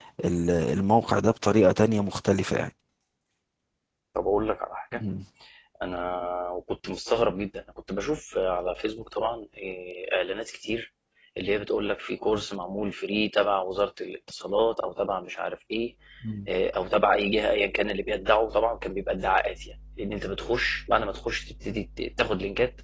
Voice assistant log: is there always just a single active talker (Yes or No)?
Yes